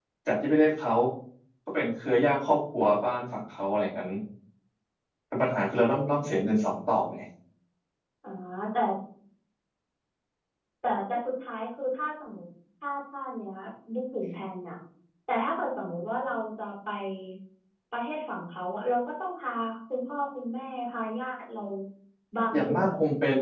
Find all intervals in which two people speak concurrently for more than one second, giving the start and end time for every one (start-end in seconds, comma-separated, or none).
none